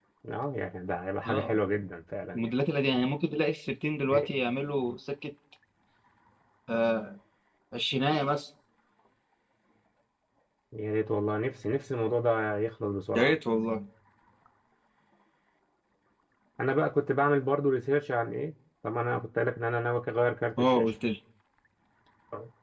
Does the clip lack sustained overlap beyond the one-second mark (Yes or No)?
Yes